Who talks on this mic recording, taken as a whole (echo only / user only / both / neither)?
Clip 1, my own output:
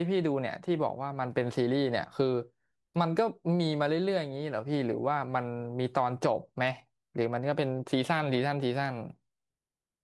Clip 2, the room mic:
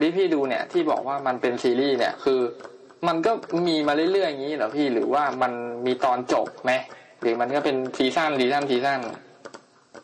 echo only